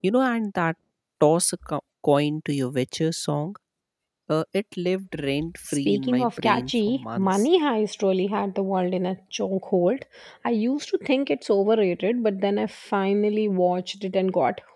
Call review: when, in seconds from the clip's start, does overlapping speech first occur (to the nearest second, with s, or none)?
6 s